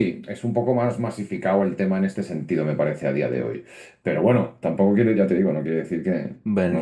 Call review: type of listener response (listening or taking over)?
taking over